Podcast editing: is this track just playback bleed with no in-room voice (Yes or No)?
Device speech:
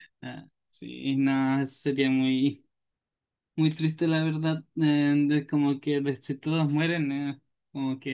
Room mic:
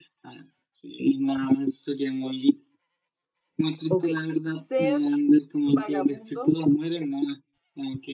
No